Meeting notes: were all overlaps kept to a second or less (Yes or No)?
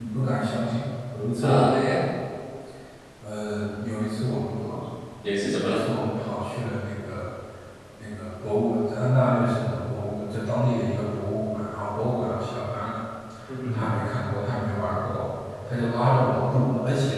Yes